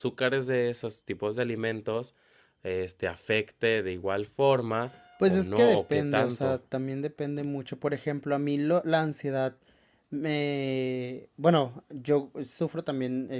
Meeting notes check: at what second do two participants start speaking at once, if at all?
5.2 s

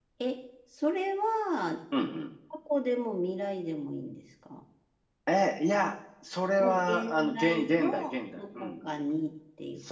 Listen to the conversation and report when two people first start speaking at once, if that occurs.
6.6 s

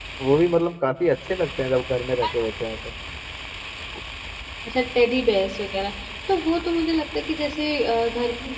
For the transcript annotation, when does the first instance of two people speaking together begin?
none

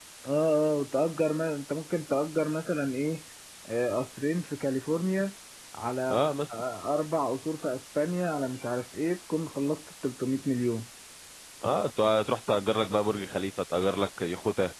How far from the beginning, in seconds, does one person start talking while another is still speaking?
none

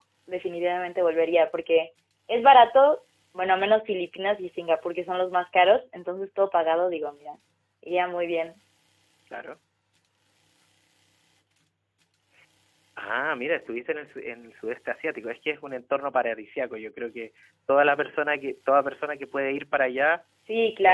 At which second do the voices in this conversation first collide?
none

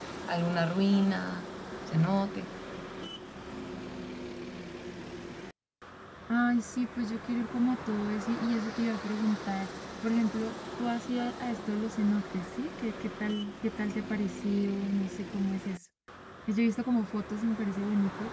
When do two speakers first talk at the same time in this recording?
none

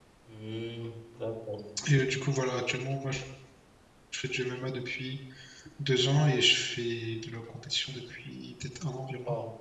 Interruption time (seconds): none

